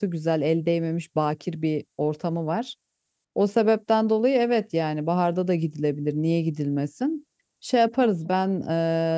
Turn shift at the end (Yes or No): No